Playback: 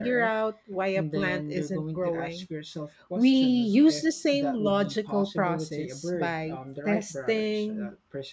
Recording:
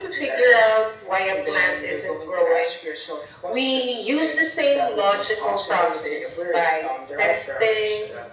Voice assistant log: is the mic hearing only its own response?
Yes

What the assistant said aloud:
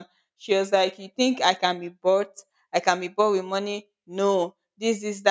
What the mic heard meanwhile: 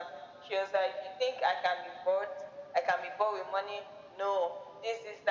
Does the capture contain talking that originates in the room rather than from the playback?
No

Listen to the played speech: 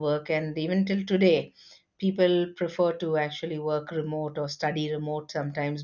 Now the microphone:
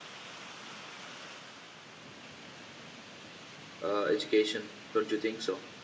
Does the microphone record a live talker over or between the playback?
Yes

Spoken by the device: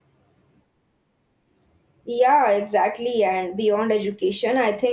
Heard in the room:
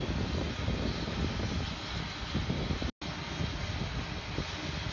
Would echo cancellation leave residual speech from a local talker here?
No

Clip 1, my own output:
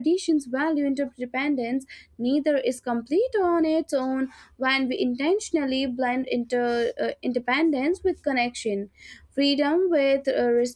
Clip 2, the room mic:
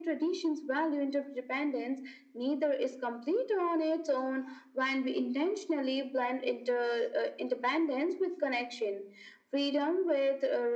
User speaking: No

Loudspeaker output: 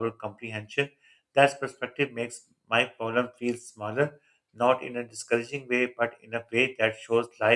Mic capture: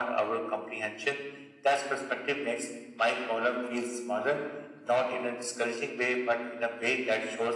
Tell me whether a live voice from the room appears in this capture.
No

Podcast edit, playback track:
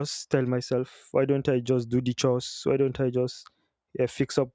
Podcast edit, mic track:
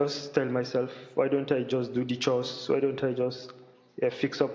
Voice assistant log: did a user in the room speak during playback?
No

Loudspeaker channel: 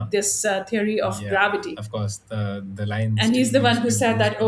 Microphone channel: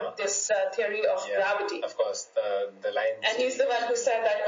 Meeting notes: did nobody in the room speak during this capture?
Yes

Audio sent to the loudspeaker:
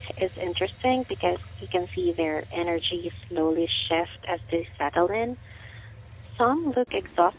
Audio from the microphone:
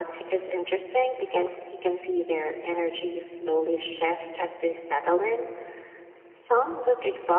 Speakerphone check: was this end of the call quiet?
Yes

